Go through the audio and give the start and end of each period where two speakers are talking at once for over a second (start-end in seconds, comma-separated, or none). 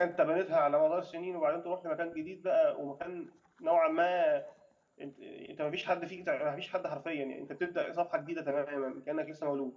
none